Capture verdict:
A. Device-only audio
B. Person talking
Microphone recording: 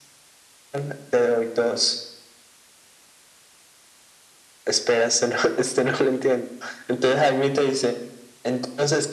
A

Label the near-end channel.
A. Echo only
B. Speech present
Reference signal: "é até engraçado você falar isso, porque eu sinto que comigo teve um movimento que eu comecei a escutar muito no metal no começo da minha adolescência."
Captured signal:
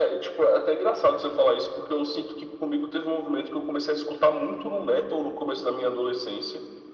A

